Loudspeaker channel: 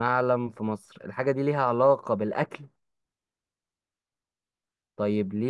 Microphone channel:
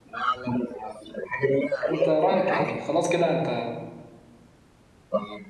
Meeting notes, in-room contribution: present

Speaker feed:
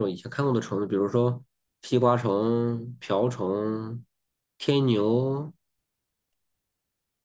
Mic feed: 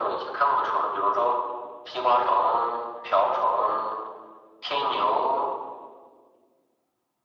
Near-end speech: none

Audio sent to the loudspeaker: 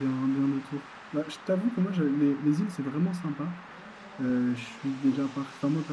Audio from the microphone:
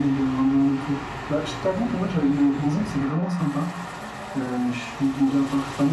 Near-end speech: none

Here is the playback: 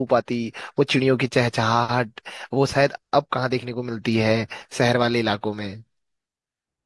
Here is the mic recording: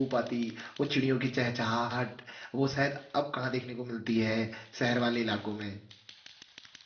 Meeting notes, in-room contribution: none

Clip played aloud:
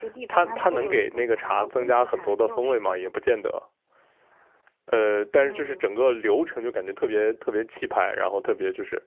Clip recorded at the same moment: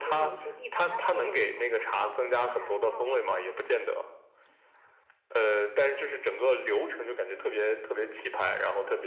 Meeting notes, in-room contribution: none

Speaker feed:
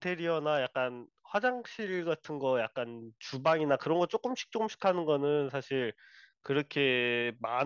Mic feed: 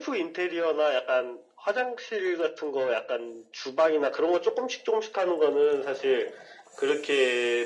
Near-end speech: none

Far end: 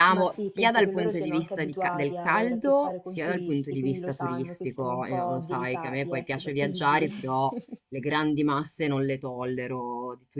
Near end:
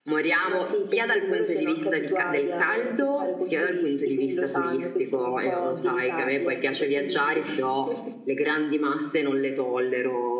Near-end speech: none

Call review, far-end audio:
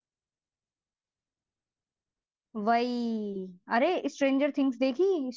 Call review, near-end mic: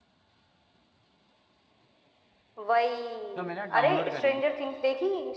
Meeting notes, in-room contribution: present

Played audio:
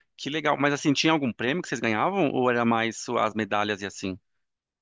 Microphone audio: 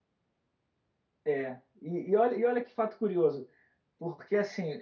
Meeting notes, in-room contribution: present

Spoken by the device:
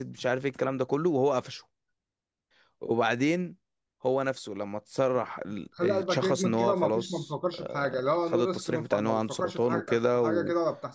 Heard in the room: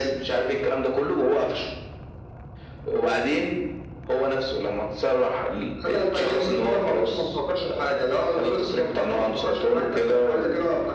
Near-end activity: none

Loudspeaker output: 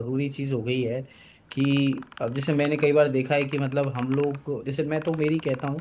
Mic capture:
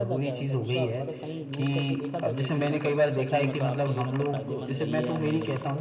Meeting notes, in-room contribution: present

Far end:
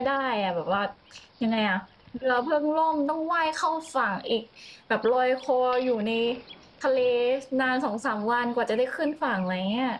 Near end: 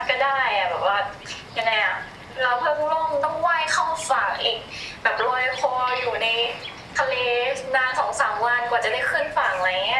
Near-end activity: none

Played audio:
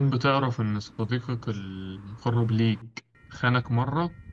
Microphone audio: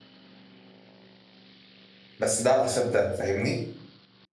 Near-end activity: present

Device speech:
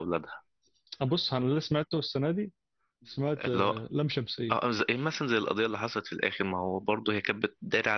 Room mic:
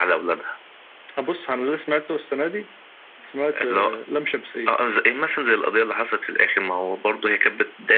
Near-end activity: none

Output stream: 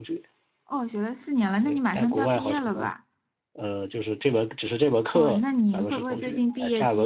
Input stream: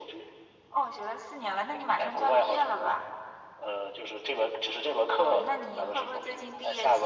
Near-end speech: none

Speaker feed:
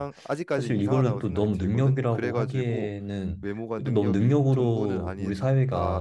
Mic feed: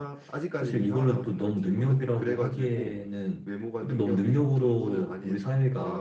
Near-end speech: none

